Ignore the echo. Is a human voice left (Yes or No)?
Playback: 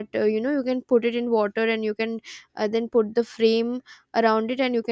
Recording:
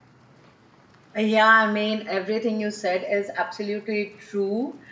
Yes